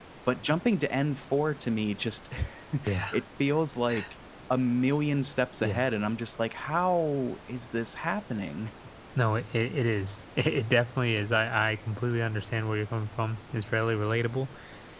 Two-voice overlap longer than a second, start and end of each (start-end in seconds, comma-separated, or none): none